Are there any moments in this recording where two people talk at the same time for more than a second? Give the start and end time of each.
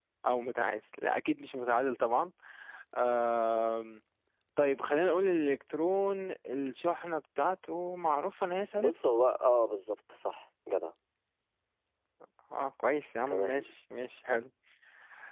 none

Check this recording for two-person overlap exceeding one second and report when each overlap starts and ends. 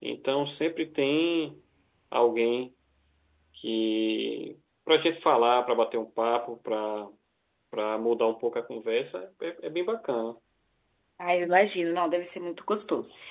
none

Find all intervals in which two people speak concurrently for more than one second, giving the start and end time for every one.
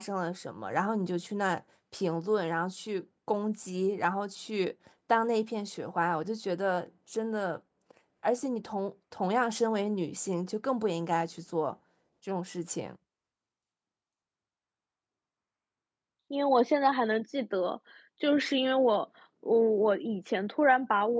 none

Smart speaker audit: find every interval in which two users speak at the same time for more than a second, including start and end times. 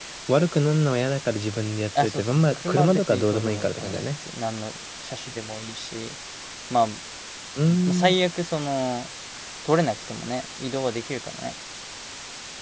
2.0-4.0

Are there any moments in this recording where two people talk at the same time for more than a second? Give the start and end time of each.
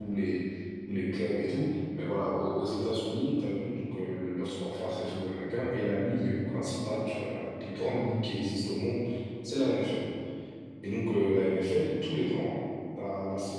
none

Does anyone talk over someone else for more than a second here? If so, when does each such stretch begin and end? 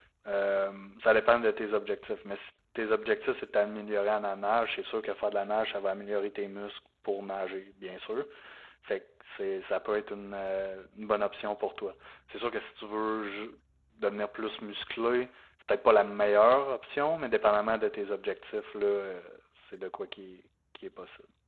none

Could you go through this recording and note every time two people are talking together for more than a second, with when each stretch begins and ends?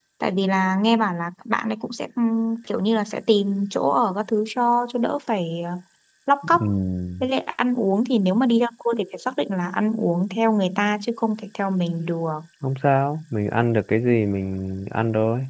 none

